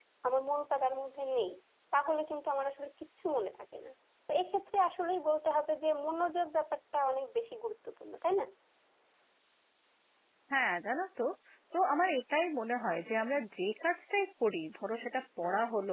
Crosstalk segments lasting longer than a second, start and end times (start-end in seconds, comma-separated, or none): none